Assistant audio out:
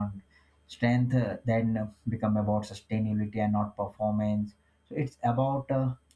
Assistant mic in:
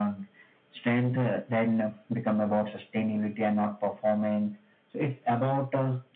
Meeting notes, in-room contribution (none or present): none